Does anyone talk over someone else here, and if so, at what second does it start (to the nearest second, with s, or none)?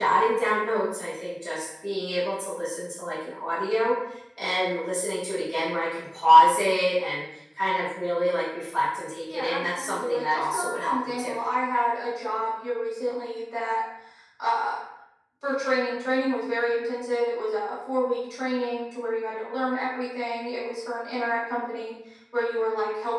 9 s